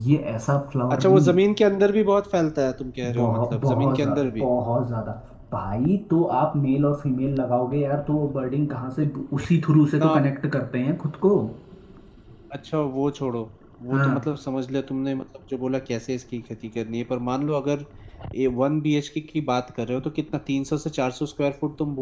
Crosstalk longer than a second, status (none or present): present